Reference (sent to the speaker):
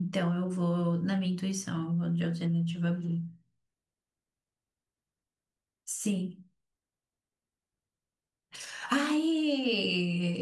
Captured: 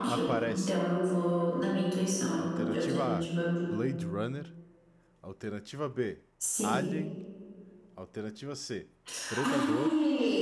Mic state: both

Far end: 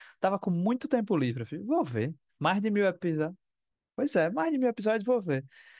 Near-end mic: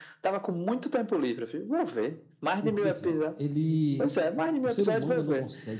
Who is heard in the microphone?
both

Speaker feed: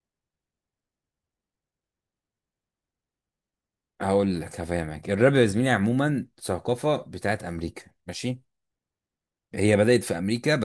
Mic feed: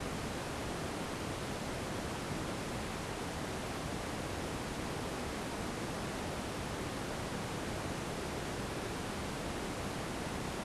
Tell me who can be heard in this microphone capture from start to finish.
neither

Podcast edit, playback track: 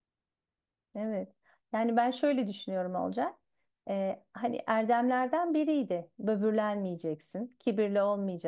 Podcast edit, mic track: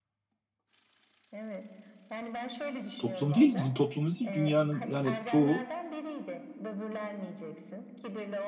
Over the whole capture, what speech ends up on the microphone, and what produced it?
both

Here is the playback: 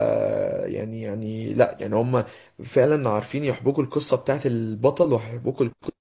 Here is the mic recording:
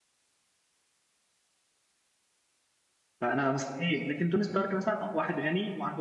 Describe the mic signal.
user only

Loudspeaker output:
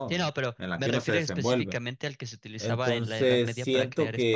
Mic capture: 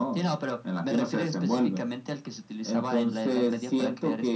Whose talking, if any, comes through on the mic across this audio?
echo only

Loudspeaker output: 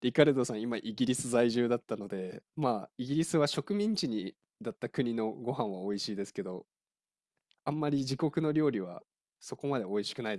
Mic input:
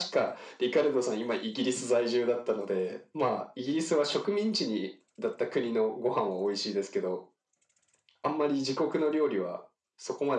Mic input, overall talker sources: echo only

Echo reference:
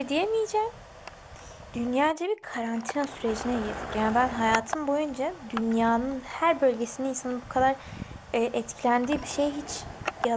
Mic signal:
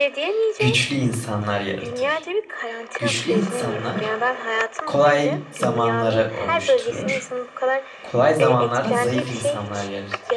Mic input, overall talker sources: both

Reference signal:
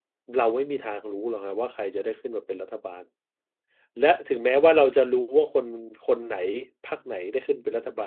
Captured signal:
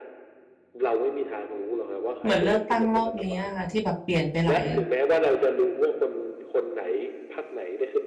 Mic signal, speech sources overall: both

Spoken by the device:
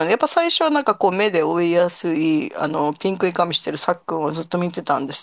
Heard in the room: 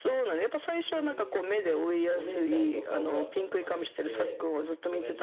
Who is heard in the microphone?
both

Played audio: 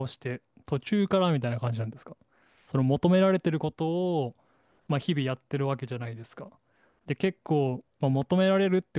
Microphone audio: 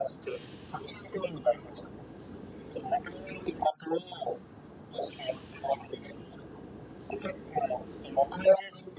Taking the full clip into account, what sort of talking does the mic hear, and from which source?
echo only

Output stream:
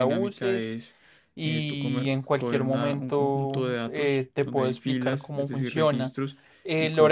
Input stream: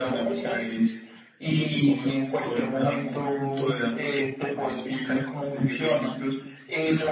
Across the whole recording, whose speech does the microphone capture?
echo only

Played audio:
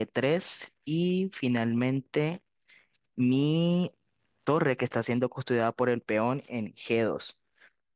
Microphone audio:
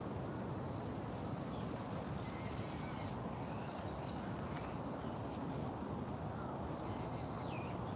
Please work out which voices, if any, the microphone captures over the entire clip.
neither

